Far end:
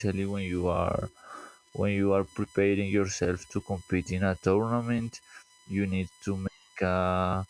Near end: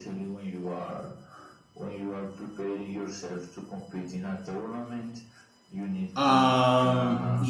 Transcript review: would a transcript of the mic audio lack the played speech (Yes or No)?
No